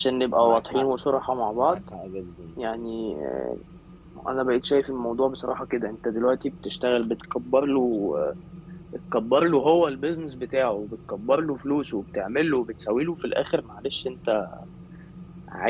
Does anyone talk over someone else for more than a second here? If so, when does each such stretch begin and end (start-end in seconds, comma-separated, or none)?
none